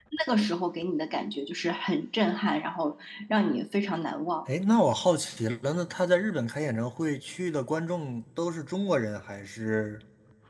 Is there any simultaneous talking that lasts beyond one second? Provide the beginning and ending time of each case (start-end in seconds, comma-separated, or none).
none